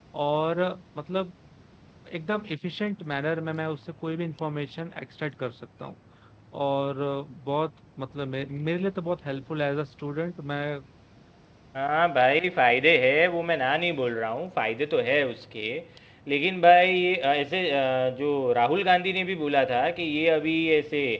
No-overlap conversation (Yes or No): Yes